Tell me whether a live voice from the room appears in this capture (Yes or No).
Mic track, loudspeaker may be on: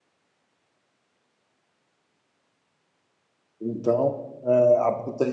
Yes